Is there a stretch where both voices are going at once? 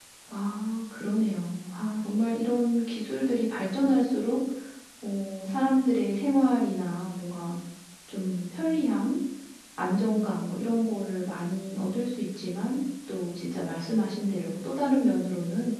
No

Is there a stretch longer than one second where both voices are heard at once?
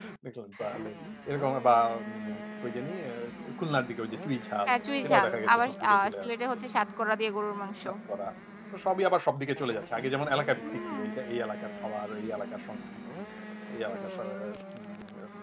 Yes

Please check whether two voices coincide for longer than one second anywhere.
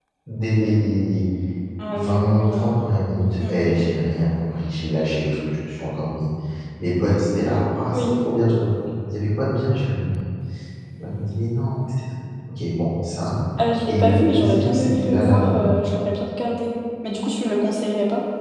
Yes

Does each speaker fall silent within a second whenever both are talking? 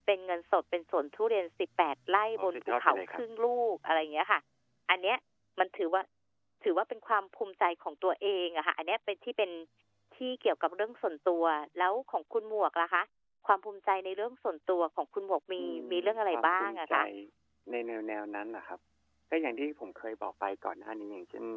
No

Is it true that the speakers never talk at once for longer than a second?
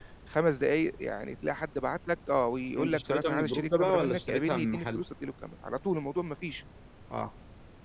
No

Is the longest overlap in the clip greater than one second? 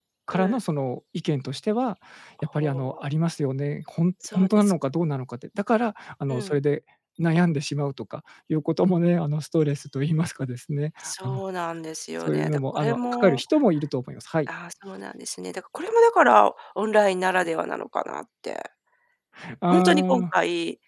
Yes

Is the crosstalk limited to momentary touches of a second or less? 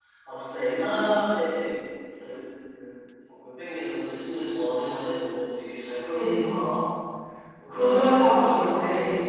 No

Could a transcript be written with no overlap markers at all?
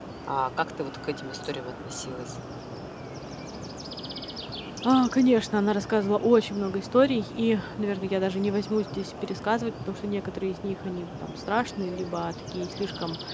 Yes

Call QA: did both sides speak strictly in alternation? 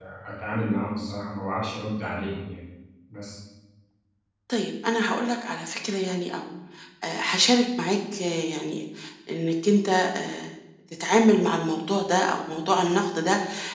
Yes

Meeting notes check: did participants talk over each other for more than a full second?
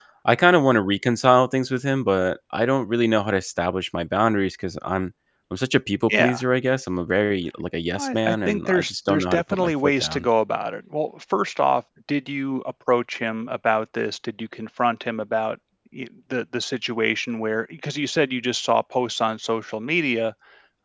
Yes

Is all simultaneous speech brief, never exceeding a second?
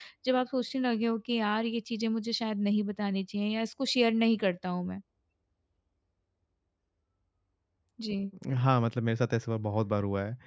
Yes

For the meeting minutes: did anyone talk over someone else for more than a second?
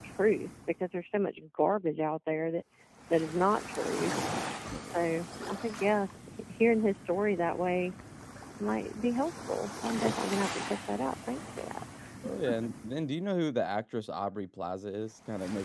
No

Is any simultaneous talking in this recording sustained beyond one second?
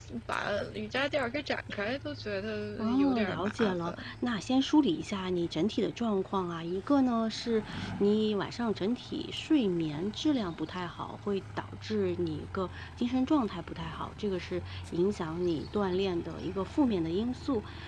Yes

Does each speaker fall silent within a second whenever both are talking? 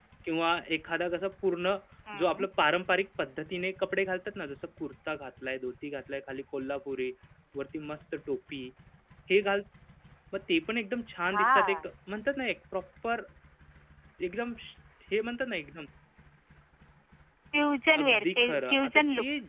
No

